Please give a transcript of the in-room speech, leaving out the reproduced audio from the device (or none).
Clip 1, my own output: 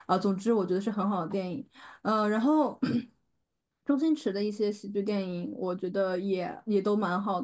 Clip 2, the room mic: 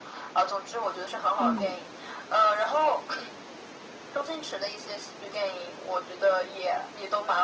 嗯。